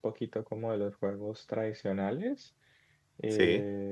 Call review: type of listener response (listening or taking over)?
listening